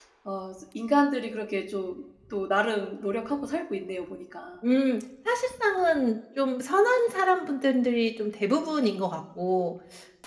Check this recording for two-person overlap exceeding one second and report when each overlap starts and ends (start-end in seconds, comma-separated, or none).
none